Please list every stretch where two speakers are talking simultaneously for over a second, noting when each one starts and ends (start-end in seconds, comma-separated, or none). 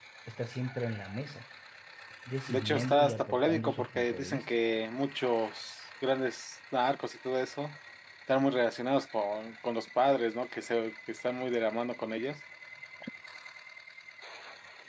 2.5-4.5